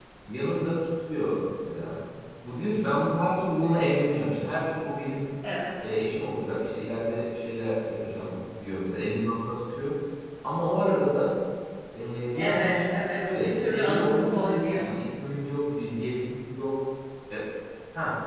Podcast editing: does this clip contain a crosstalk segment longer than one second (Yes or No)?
Yes